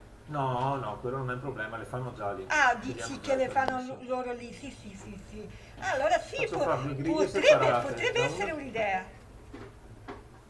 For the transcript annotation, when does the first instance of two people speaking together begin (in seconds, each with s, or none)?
2.5 s